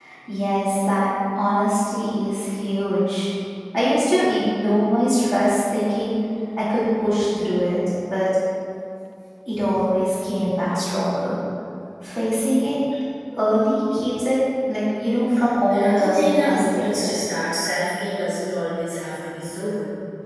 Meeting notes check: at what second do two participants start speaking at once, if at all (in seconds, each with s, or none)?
15.7 s